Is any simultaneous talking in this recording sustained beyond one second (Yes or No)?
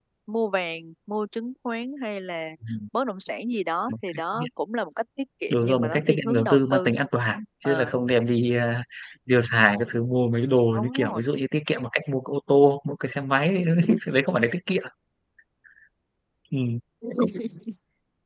Yes